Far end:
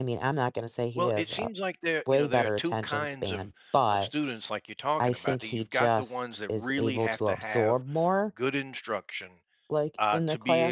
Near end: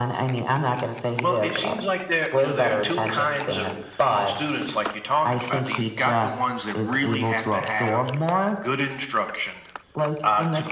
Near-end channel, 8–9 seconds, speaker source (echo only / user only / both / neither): echo only